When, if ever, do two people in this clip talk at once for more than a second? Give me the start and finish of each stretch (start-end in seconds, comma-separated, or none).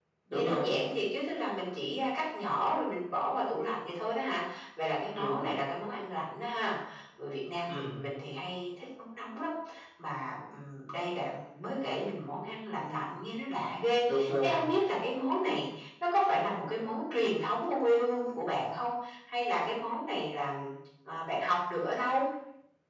none